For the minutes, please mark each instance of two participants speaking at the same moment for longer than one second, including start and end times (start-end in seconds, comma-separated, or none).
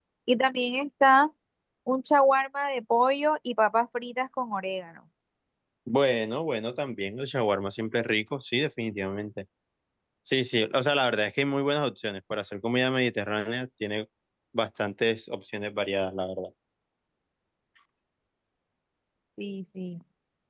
none